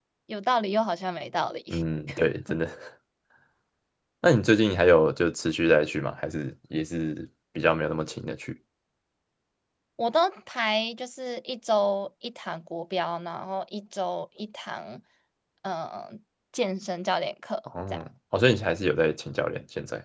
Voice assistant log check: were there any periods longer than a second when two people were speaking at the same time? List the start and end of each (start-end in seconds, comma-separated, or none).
none